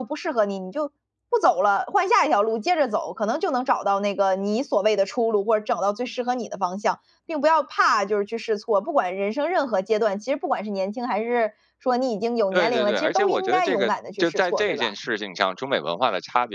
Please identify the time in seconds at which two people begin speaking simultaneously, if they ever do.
12.5 s

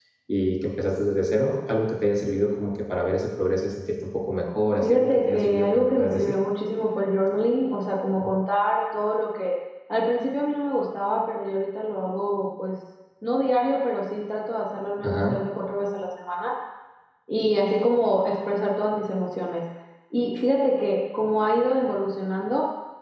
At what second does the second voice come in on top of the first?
4.8 s

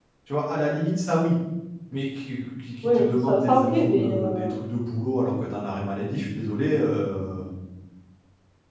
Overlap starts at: 2.8 s

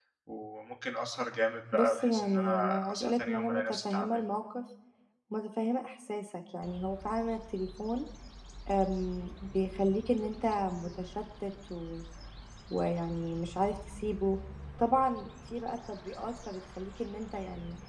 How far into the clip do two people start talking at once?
1.7 s

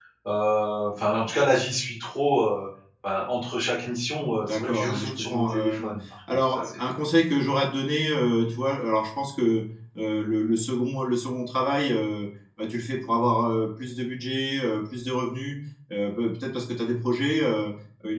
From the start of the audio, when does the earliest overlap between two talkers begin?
4.4 s

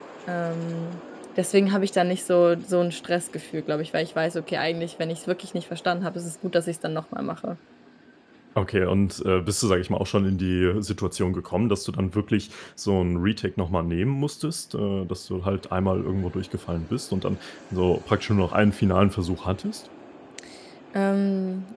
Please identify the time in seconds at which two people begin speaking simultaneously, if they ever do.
none

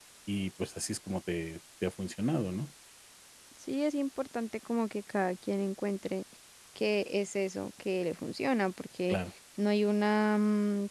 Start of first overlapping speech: none

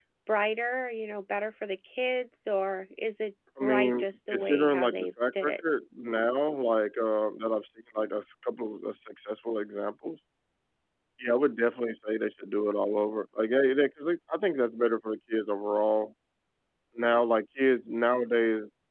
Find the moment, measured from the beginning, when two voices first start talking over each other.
3.6 s

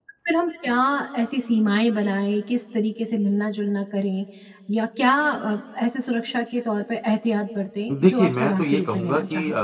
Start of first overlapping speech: 7.9 s

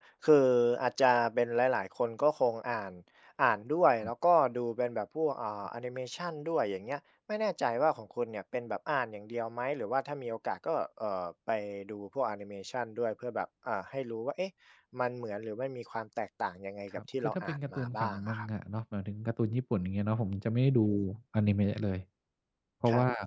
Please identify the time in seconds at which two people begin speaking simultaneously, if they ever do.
17.0 s

